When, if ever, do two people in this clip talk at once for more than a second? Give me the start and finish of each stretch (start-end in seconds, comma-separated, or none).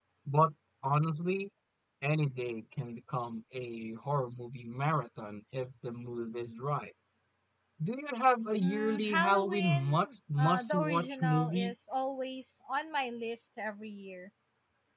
8.6-11.7